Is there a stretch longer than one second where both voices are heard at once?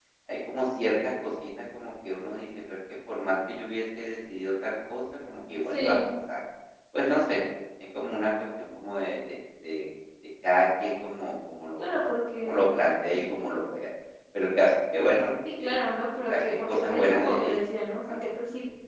Yes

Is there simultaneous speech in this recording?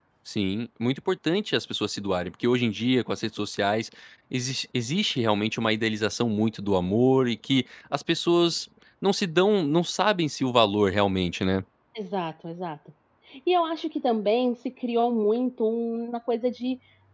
No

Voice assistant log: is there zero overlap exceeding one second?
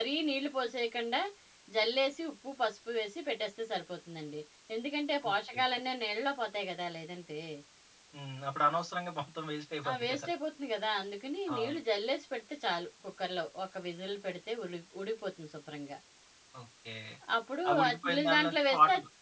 No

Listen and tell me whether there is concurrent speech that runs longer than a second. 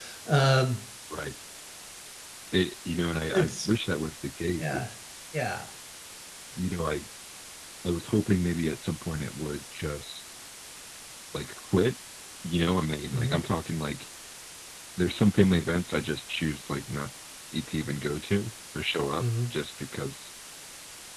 No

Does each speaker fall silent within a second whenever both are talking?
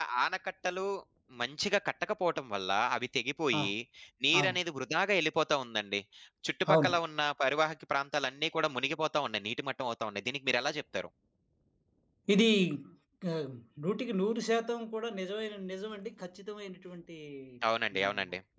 Yes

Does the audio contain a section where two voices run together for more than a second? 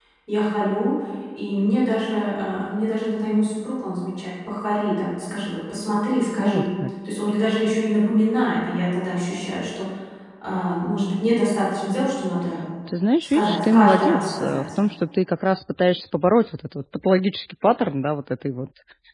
Yes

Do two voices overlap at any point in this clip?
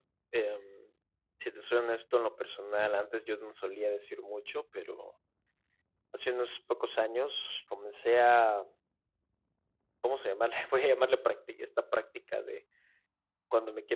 No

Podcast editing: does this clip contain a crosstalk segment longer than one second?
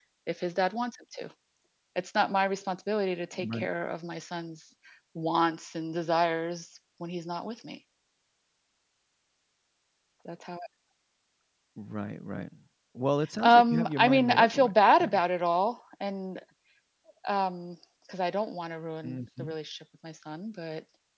Yes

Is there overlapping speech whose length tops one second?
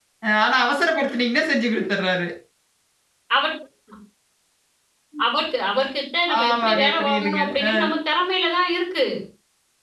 Yes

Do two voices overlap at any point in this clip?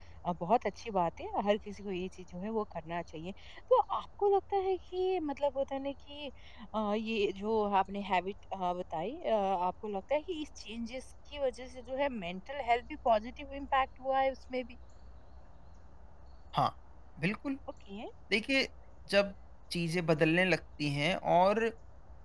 No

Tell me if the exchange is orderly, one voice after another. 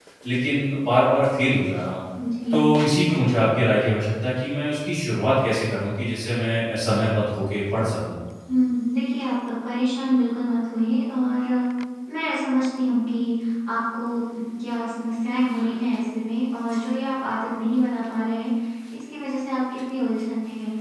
Yes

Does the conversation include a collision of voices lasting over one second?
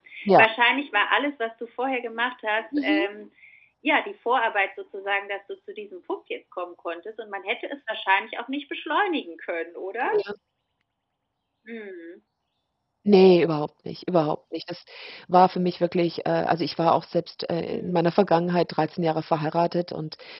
No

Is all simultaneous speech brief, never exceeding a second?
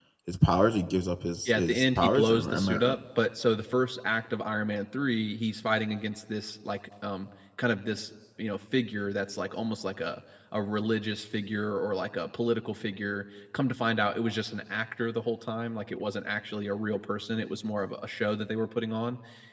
No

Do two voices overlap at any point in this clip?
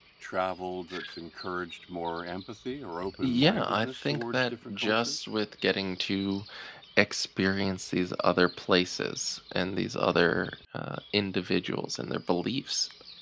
Yes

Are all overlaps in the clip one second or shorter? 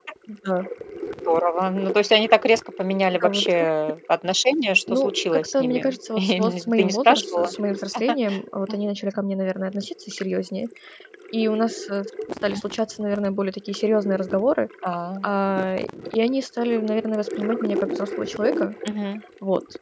No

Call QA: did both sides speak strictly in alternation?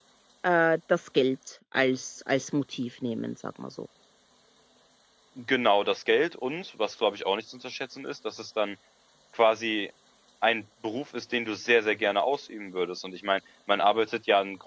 Yes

